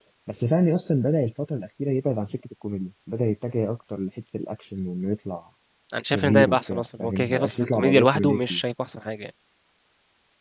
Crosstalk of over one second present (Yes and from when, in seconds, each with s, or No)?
Yes, from 6.1 s